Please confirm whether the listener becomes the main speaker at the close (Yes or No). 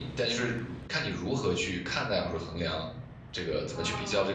Yes